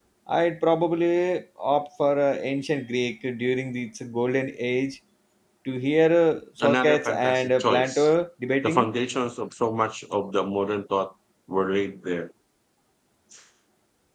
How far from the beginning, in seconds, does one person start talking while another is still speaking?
6.6 s

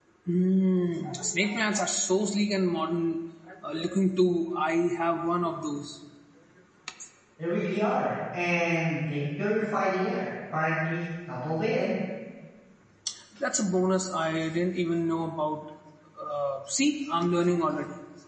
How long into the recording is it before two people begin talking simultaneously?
none

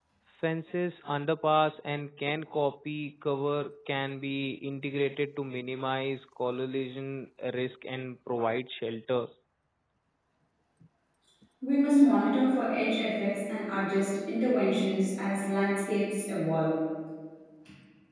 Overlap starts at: none

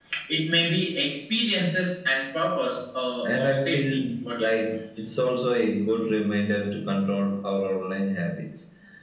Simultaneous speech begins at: 3.2 s

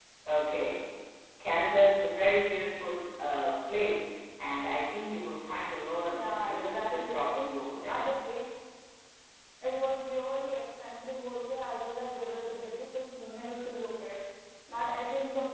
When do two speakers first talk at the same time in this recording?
6.1 s

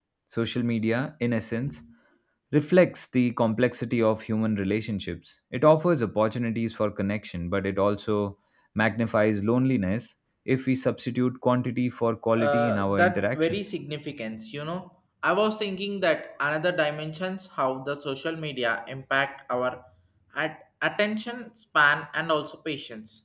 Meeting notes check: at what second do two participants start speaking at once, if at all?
12.4 s

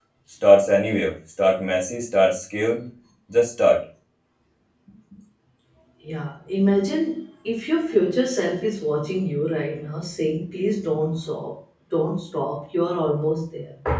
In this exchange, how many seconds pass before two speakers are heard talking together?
none

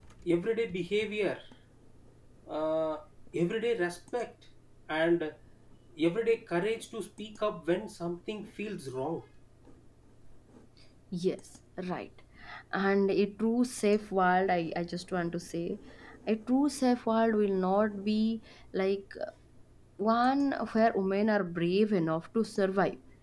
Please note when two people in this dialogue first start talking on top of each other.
none

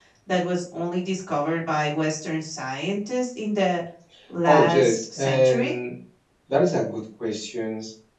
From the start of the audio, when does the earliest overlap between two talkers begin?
4.5 s

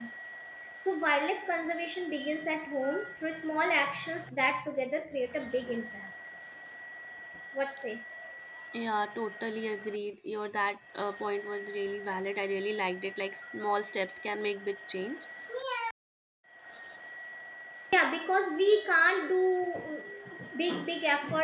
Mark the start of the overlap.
none

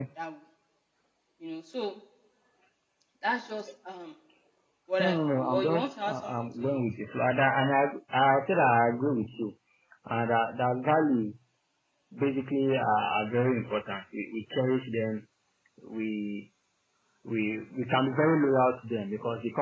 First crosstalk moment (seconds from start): 5.0 s

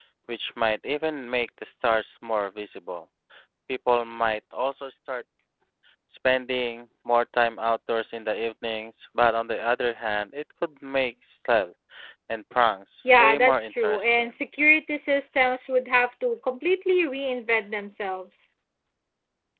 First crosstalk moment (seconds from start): 13.0 s

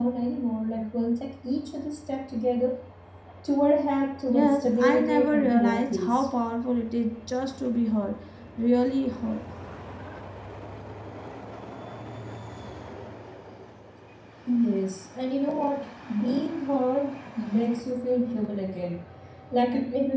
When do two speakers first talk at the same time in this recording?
4.3 s

